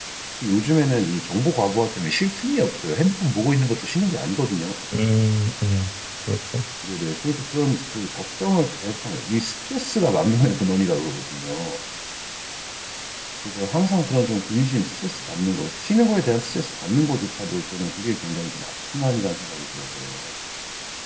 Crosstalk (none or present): none